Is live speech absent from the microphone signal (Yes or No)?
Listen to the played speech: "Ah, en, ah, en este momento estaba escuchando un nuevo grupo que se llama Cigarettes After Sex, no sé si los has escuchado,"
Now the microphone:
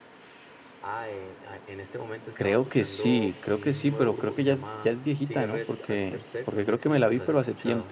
No